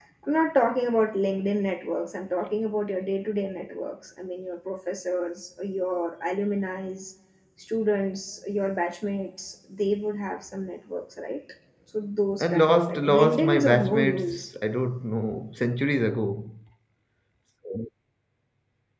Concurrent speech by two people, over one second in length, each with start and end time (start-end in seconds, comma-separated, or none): 12.4-14.4